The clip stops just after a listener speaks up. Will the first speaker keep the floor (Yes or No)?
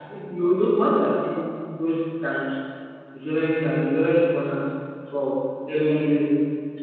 Yes